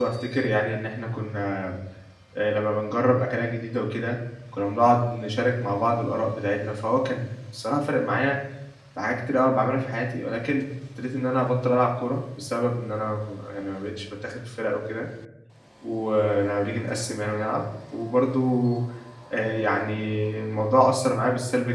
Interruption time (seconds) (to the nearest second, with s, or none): none